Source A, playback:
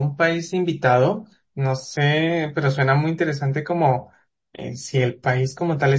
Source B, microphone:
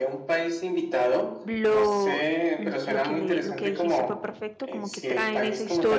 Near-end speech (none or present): present